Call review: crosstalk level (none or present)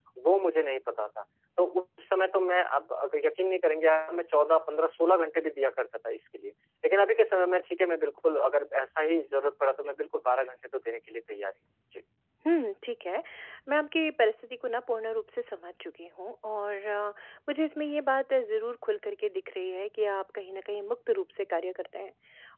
none